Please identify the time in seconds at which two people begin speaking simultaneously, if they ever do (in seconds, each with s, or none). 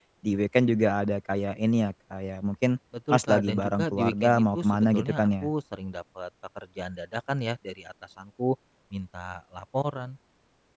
3.1 s